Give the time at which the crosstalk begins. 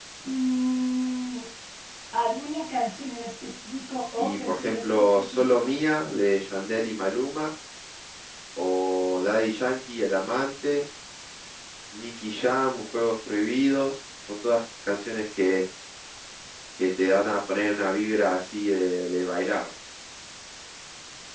4.2 s

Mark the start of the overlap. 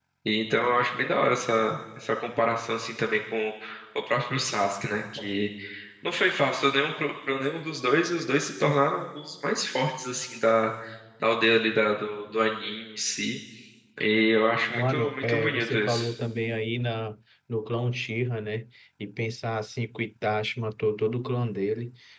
14.7 s

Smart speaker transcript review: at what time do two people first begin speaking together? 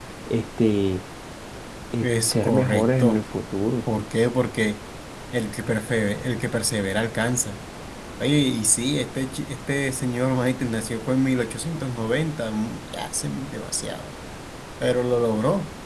2.0 s

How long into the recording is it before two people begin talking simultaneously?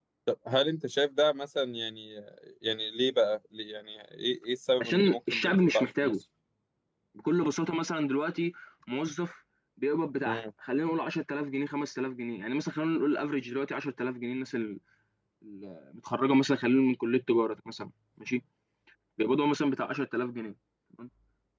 4.8 s

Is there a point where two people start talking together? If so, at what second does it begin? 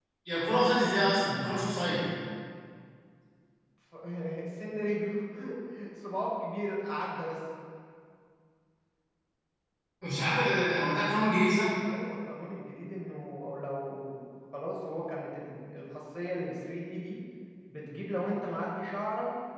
none

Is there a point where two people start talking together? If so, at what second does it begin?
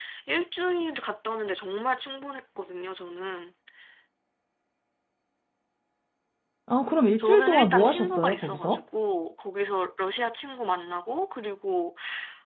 7.2 s

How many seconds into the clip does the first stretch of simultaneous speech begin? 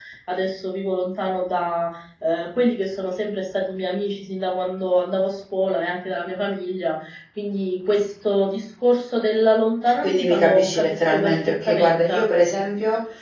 9.9 s

